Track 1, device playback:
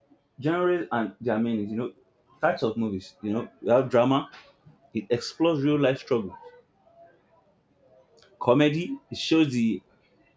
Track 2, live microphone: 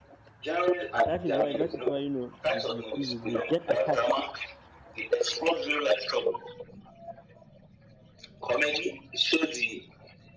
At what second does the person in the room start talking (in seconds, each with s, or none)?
1.0 s